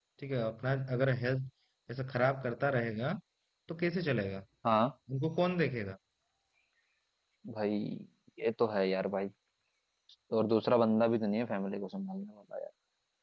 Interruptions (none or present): none